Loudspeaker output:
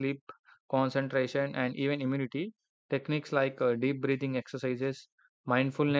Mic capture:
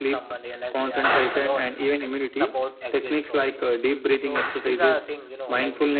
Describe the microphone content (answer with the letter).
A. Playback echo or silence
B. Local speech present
B